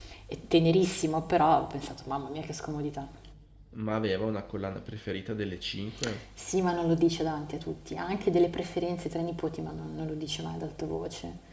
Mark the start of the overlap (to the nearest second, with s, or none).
none